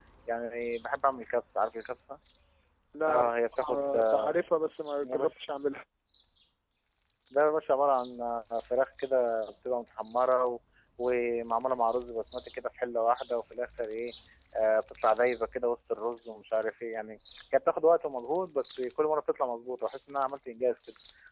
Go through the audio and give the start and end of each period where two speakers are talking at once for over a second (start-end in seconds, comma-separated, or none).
3.1-4.3